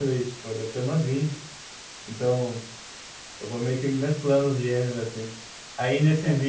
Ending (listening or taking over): listening